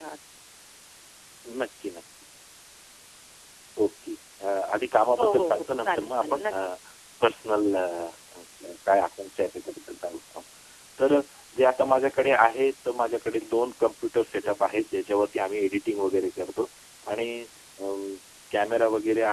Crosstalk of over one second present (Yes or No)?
Yes